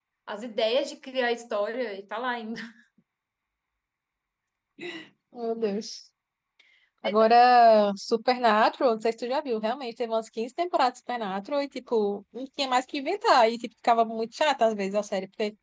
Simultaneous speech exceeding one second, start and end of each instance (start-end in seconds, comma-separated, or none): none